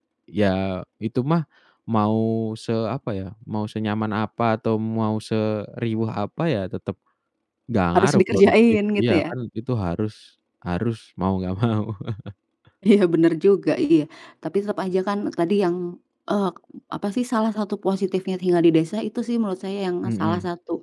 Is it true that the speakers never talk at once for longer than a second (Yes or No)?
No